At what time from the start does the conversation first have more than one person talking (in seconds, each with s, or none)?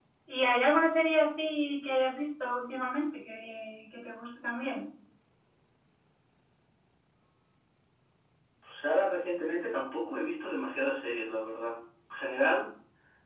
none